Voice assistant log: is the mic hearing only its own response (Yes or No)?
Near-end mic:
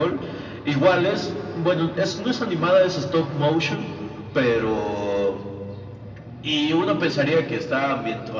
Yes